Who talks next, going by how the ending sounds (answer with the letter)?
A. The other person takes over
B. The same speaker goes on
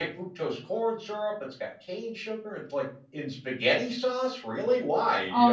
A